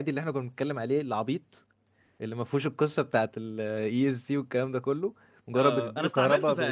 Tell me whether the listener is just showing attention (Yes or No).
No